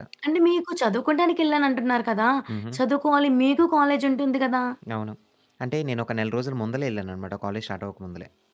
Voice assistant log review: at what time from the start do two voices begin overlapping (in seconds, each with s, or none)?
none